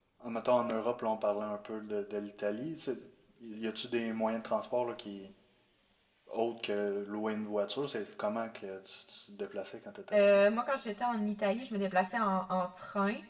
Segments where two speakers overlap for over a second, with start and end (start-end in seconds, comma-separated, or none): none